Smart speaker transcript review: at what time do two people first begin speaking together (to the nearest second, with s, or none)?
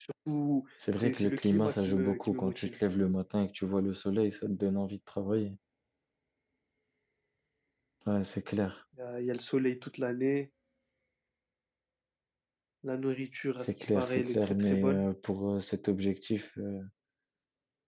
1 s